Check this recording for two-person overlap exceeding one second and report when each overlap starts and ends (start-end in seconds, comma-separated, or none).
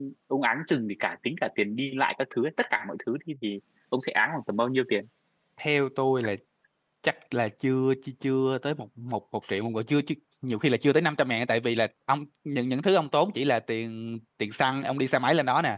none